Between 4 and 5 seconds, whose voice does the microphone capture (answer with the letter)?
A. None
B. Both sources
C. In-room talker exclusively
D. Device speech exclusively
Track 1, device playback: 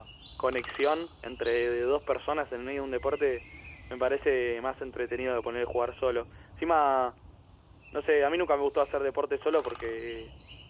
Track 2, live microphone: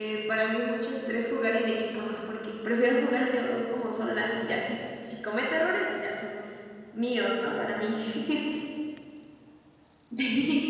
C